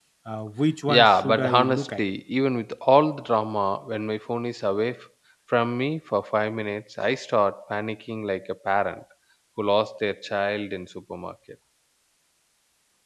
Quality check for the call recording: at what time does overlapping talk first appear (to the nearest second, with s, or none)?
1 s